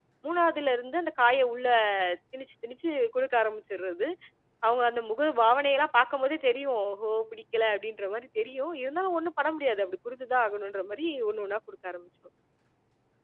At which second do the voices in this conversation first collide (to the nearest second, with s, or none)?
none